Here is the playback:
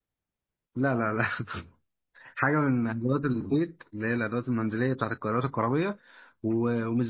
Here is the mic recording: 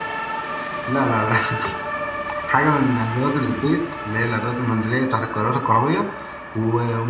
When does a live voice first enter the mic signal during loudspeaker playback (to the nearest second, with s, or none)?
none